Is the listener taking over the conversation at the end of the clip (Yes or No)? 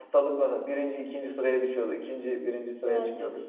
No